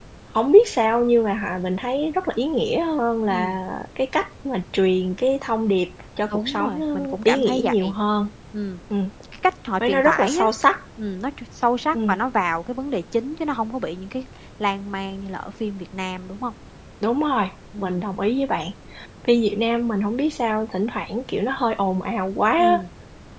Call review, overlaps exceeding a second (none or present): present